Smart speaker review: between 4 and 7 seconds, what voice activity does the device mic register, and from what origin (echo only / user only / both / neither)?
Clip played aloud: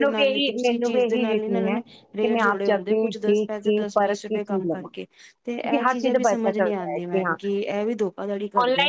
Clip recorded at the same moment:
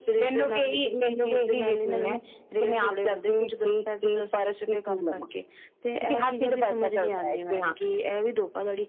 echo only